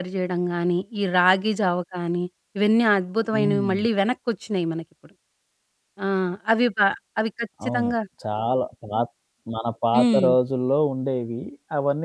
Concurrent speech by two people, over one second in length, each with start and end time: none

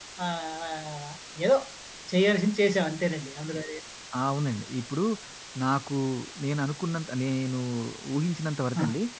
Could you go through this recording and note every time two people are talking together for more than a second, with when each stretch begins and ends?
none

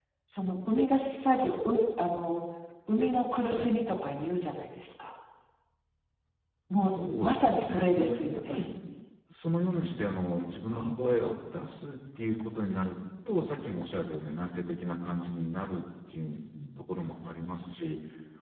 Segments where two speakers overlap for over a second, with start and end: 6.8-8.6

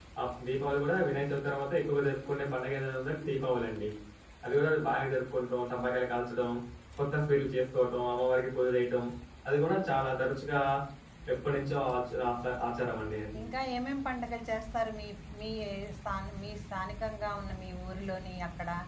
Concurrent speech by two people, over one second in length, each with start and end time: none

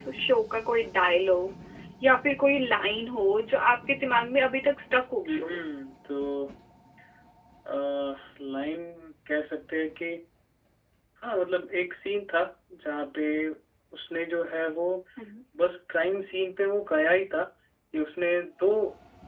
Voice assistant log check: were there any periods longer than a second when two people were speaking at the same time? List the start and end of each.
none

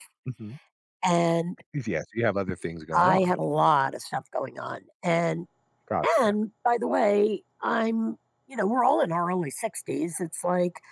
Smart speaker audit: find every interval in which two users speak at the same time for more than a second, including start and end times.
none

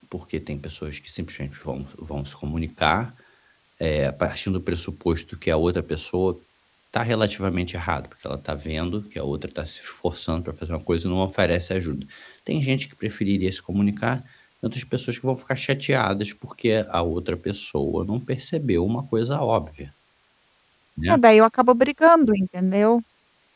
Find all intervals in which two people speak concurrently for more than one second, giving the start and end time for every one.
none

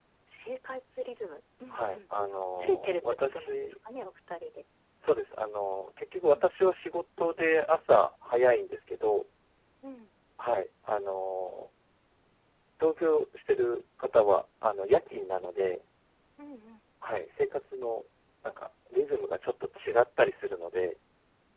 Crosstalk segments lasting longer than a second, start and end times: 2.5-3.7

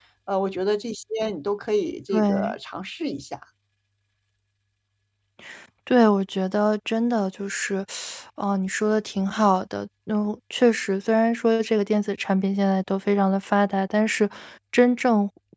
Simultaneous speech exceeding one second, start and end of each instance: none

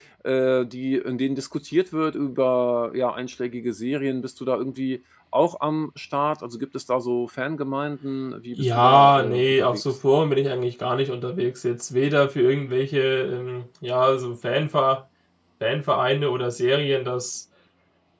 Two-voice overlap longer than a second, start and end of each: 8.6-9.8

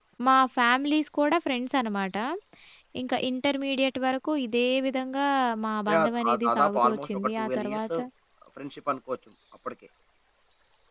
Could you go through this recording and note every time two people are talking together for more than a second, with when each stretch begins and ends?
5.9-7.9

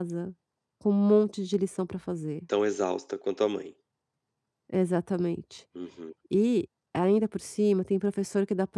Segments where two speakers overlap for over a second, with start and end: none

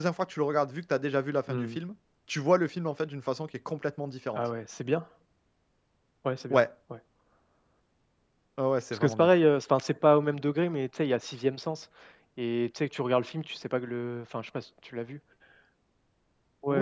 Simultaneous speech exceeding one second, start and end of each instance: none

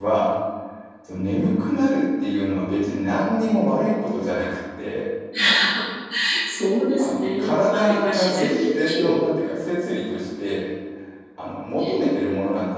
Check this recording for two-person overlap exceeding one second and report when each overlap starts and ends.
7.0-9.2

